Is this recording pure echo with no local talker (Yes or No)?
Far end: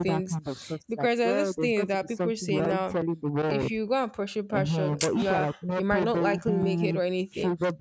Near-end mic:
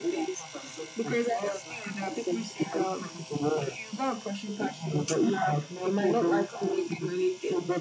Yes